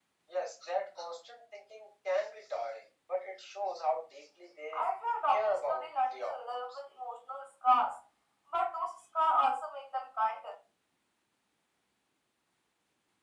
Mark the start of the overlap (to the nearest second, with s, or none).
5 s